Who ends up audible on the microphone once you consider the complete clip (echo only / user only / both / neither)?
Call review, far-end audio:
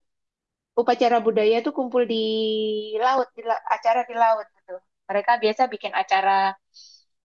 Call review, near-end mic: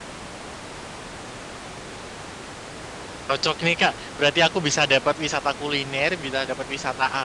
user only